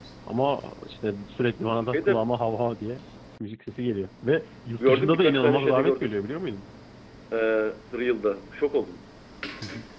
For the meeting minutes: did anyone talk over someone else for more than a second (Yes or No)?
Yes